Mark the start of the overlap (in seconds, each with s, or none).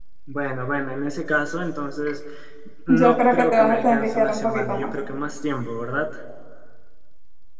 2.9 s